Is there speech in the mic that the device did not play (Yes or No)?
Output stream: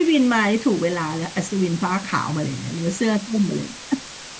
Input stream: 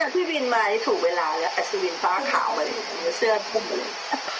Yes